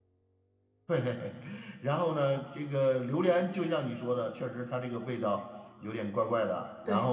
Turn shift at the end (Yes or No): Yes